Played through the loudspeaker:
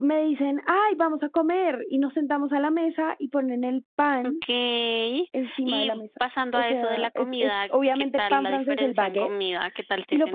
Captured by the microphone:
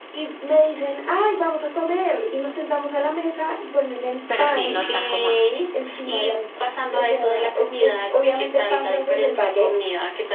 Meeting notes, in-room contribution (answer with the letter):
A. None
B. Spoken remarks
B